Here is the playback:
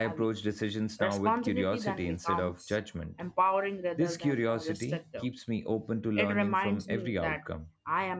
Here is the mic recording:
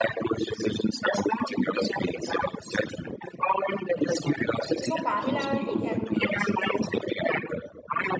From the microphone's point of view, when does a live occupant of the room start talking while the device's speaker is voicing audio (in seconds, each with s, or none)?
4.7 s